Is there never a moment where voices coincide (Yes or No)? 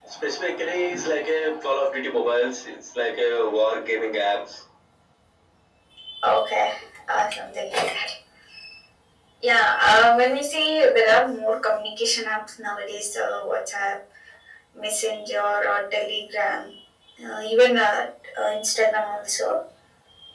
Yes